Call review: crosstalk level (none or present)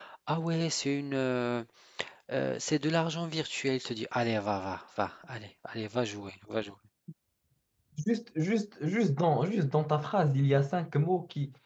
none